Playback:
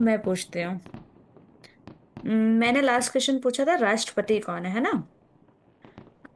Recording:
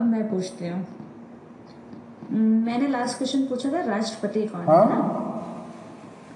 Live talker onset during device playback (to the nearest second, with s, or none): 5 s